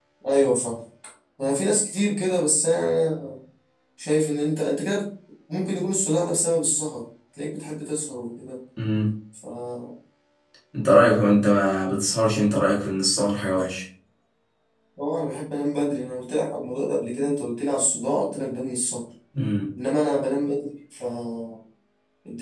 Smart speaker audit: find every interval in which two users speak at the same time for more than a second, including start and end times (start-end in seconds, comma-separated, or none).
none